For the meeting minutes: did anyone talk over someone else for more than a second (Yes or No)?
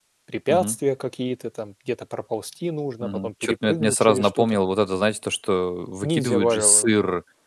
Yes